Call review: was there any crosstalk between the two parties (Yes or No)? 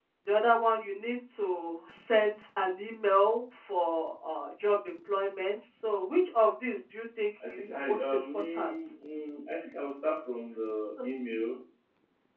Yes